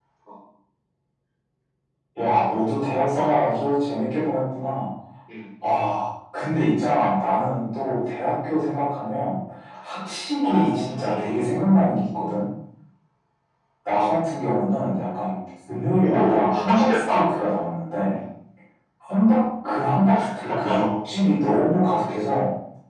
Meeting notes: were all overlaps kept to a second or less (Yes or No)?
No